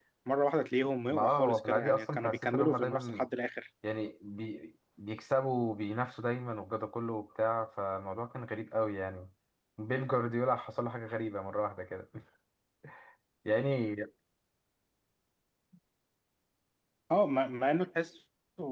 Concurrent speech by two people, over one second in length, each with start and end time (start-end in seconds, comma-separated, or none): 1.1-3.3